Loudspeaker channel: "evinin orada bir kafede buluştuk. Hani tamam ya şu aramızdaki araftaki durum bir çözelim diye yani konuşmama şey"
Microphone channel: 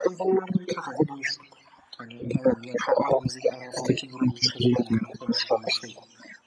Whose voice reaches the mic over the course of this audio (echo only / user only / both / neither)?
echo only